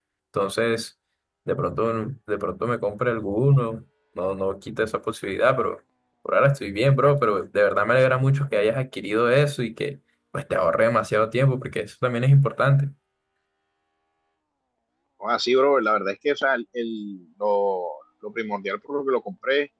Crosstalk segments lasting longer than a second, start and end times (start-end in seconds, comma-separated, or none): none